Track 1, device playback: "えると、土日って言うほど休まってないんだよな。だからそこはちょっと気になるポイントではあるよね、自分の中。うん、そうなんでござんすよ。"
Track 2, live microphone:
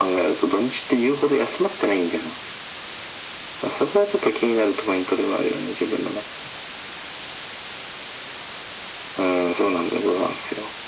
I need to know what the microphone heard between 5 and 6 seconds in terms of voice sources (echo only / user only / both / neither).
echo only